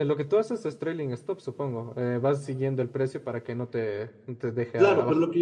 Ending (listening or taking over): taking over